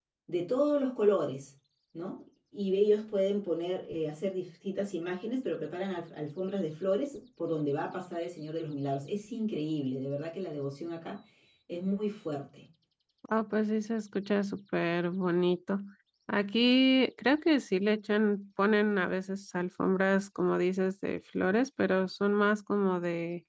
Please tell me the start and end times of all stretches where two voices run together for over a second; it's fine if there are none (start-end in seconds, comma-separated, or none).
none